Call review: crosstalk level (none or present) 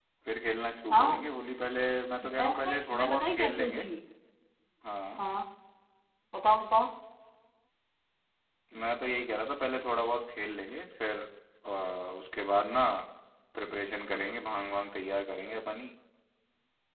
present